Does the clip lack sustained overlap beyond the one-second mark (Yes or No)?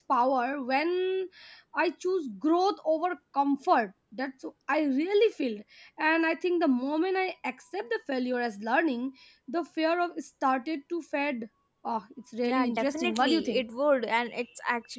No